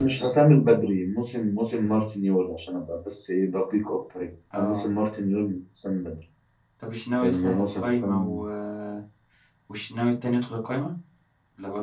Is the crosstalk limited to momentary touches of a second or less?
No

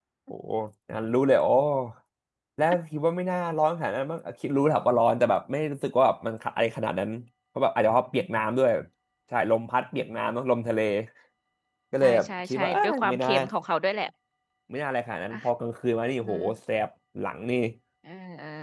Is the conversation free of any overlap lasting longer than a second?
No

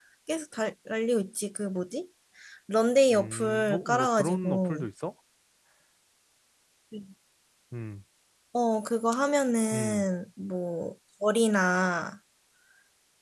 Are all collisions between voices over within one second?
No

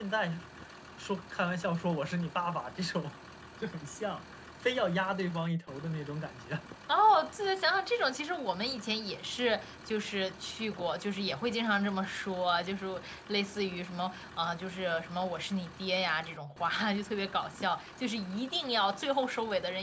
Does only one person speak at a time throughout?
Yes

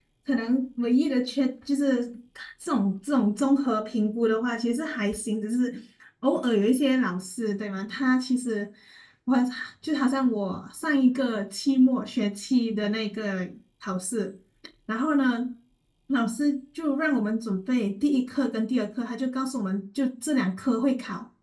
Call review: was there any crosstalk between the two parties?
No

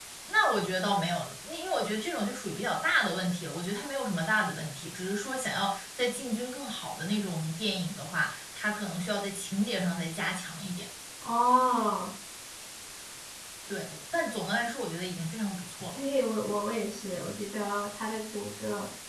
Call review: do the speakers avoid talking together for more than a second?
Yes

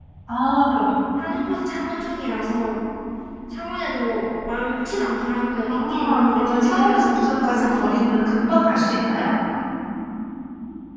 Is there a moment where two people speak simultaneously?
Yes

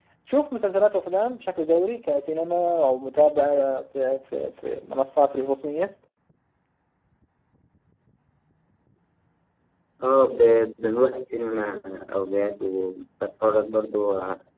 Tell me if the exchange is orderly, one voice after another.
Yes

